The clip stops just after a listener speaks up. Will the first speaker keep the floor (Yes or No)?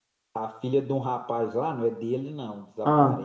Yes